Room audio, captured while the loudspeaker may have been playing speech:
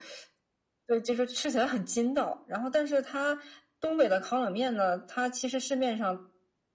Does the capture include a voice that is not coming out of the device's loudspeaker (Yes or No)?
No